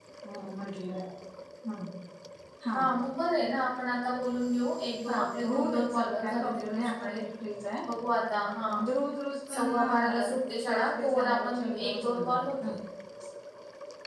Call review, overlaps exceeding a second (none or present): present